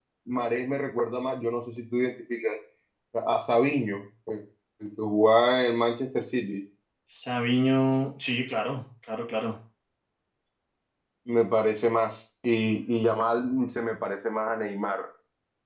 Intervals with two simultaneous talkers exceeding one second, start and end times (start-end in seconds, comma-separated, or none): none